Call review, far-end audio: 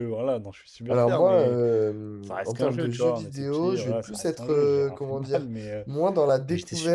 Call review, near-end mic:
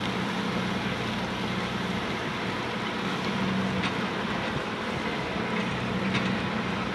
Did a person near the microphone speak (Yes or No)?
No